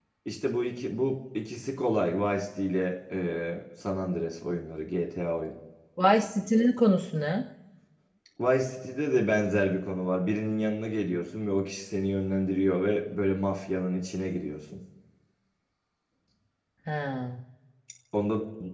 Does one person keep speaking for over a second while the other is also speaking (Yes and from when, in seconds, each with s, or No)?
No